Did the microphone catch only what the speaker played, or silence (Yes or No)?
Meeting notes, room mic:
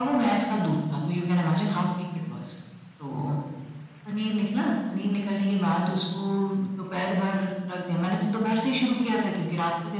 Yes